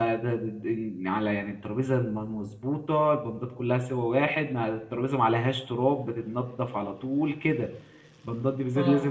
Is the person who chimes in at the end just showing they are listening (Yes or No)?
Yes